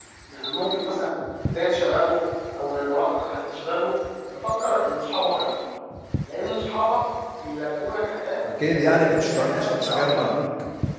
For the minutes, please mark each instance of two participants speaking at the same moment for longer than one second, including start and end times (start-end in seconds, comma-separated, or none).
8.6-10.4